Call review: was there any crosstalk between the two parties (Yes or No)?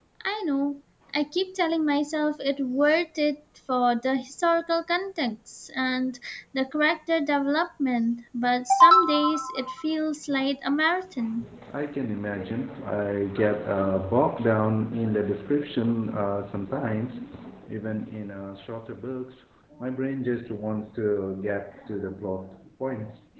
No